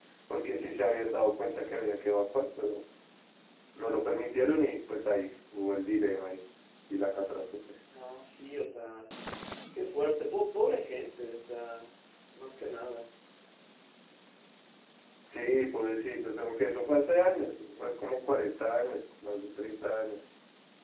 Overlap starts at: none

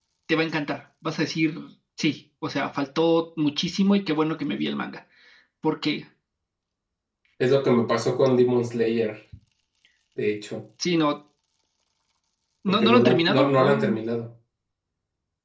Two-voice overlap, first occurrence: 12.7 s

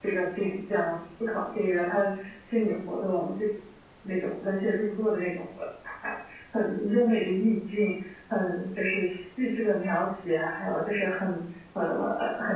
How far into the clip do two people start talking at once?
none

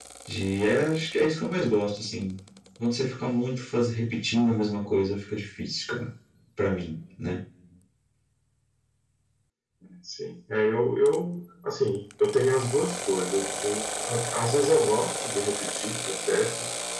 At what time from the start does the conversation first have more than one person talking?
none

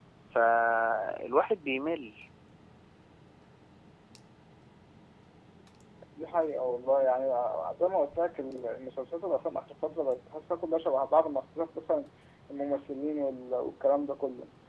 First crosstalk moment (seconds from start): none

